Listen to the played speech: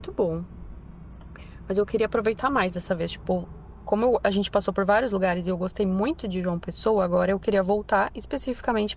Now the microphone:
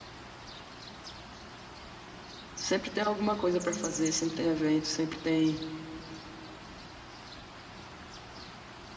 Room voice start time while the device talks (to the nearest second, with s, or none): 3 s